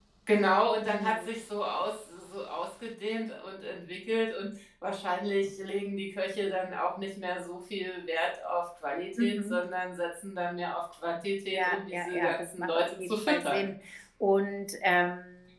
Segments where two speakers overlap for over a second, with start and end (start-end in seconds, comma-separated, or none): 11.5-13.7